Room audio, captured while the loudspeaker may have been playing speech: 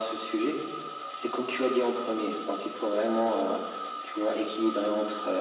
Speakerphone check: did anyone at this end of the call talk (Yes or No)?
No